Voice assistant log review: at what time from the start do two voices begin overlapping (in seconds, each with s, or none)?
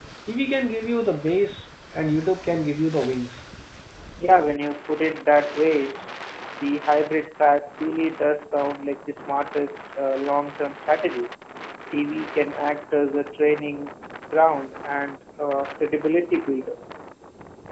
none